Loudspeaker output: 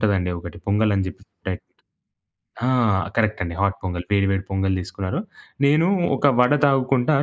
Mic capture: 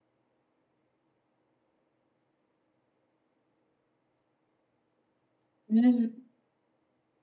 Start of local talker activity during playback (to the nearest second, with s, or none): 6 s